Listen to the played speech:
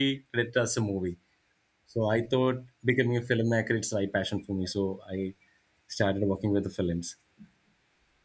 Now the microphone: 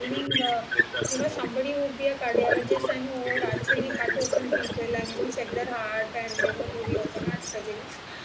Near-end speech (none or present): present